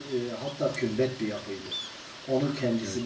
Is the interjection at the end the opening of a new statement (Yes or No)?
No